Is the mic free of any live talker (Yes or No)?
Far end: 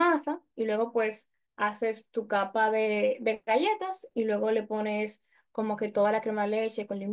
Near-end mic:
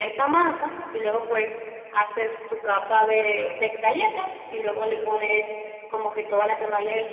Yes